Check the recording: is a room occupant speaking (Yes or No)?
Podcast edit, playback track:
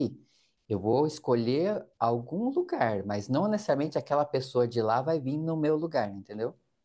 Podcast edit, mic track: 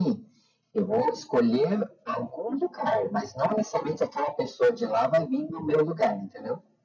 No